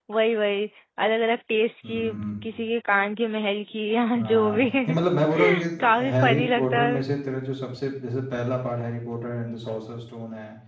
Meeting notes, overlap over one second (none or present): present